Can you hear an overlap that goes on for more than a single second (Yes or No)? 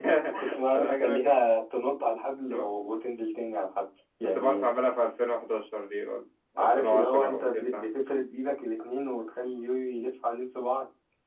Yes